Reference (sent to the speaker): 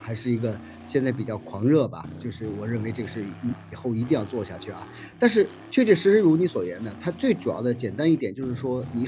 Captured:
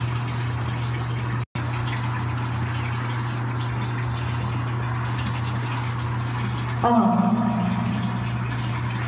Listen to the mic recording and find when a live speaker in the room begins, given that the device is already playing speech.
6.8 s

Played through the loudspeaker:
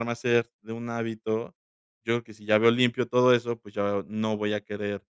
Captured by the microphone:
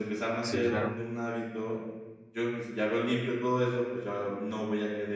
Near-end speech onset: 0.4 s

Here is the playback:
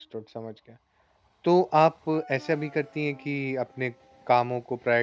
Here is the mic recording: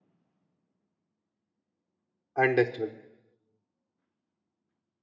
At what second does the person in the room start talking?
2.4 s

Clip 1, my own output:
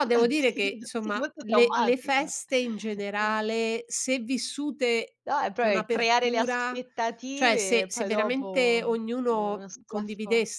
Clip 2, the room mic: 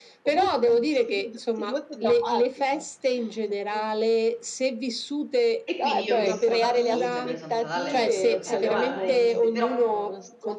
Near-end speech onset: 5.6 s

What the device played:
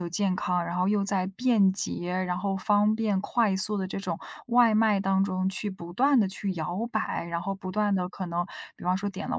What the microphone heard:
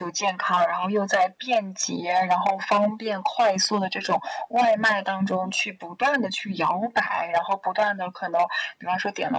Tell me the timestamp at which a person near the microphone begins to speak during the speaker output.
none

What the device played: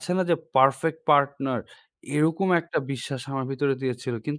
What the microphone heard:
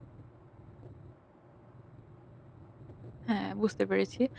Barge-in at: 3.3 s

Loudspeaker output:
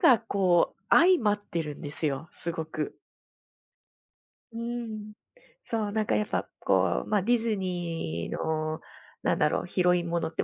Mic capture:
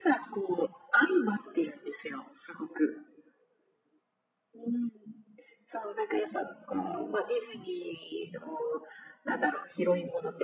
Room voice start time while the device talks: none

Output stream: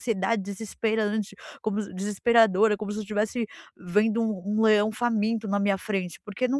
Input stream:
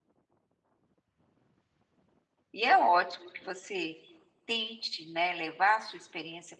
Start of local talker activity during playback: 2.5 s

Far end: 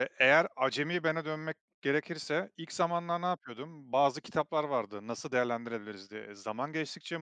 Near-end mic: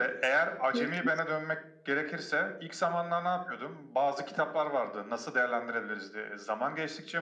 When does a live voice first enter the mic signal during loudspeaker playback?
0.7 s

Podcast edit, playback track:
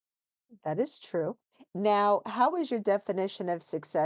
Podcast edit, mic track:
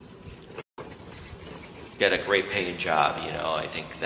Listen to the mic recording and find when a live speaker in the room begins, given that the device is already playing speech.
2.0 s

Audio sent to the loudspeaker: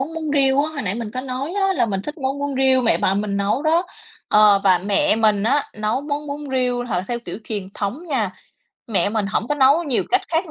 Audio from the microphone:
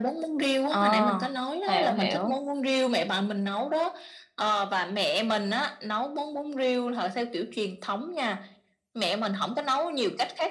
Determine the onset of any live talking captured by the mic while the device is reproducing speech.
0.7 s

